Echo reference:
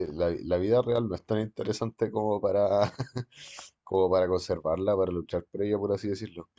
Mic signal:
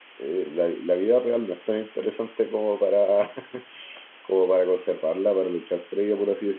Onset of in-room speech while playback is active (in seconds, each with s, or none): none